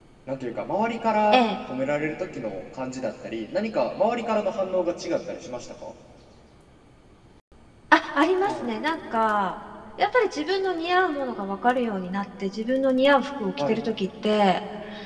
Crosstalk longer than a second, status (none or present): none